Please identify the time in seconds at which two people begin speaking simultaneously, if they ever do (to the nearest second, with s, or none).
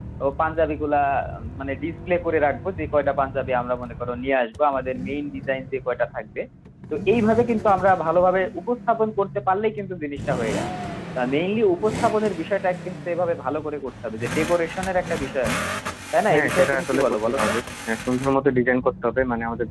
16 s